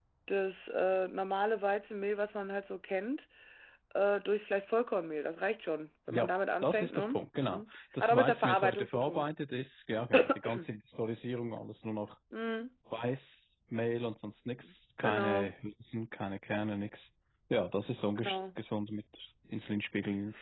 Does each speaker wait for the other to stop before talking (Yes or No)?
No